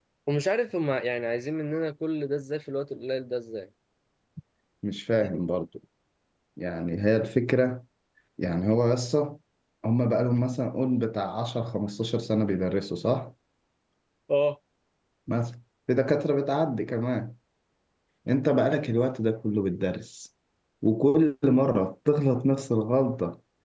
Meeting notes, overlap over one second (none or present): none